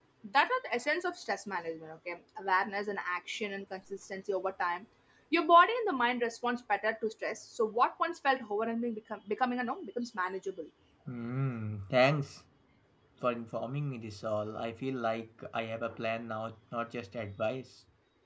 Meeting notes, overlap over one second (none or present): none